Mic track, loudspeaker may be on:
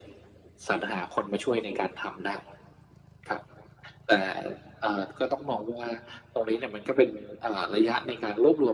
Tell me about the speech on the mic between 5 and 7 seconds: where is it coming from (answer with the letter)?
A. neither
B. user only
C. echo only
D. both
C